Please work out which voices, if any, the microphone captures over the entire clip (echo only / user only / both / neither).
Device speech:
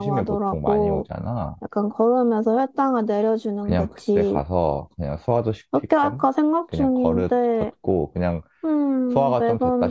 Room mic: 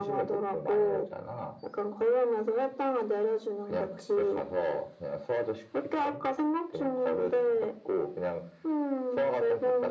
echo only